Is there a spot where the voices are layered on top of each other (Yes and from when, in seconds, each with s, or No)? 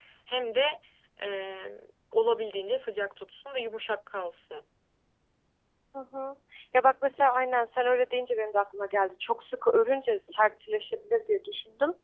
No